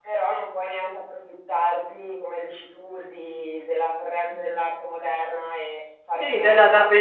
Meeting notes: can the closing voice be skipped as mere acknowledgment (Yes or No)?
No